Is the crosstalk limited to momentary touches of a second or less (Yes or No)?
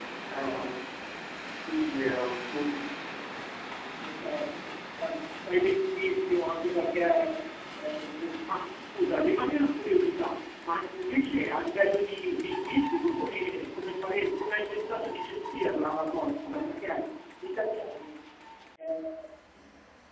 Yes